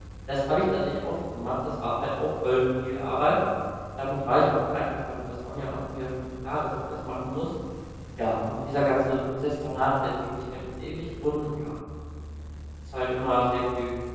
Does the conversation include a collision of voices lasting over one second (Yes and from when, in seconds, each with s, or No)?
No